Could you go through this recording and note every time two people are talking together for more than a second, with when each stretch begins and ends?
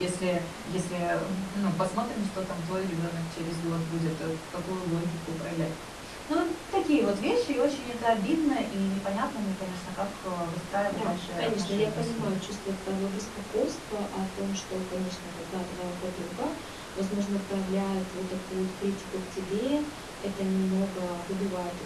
10.8-12.3

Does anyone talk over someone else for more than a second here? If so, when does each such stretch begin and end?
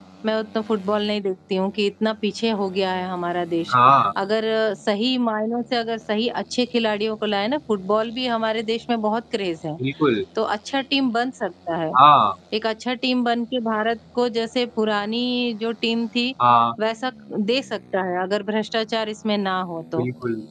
none

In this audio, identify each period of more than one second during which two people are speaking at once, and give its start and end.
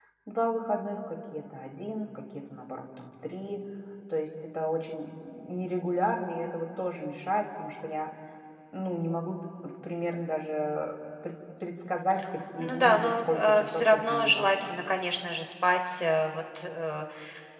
12.6-14.7

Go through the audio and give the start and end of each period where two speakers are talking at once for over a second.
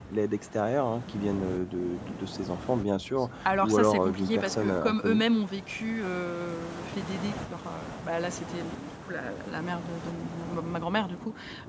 3.4-5.2

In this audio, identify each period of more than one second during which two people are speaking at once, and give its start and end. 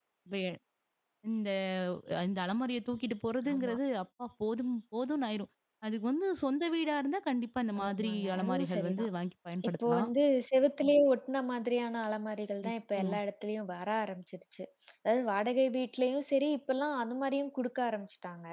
7.8-9.1

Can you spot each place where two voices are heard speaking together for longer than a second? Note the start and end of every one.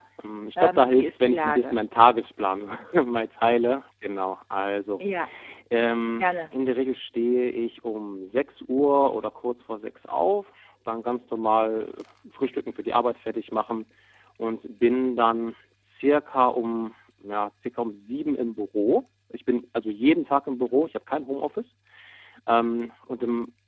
0.6-1.8

